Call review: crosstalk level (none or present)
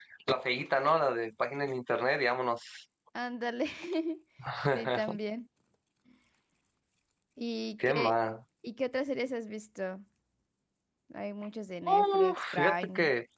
present